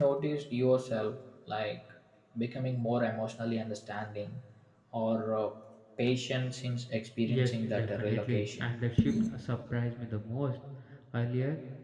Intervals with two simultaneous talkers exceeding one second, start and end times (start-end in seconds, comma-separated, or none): 7.2-8.8